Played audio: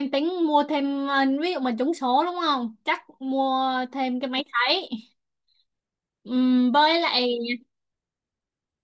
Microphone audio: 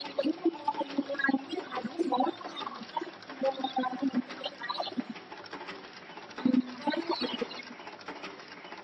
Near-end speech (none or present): none